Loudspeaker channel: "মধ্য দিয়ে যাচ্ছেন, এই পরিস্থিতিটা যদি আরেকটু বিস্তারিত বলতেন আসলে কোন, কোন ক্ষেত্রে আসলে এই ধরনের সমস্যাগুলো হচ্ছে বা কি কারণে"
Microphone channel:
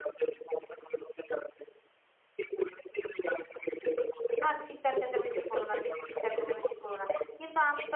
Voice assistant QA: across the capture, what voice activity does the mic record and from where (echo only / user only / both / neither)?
both